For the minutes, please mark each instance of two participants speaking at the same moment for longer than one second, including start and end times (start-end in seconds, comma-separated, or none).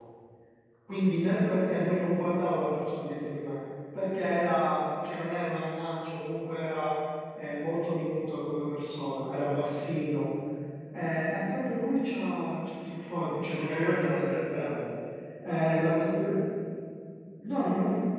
13.5-14.8